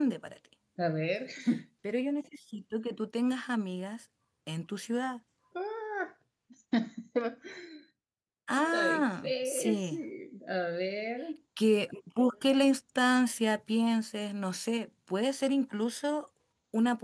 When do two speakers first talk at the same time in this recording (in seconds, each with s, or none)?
8.7 s